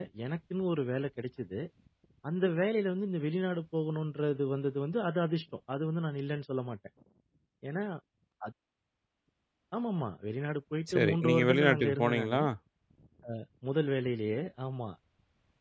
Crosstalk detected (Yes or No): Yes